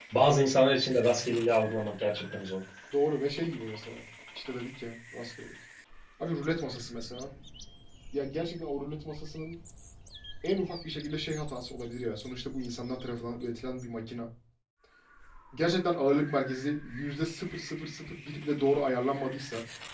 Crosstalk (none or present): none